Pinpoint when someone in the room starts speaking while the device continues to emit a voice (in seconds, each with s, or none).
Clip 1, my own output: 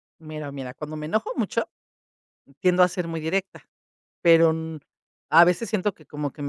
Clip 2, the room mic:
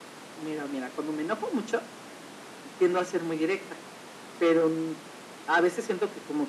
none